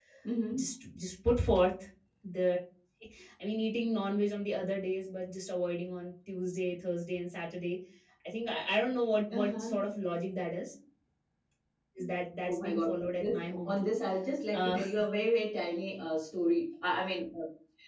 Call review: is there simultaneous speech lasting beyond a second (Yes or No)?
Yes